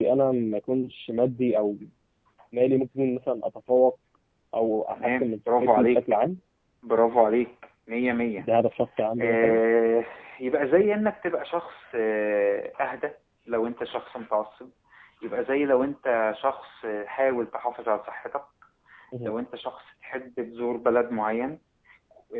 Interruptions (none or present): present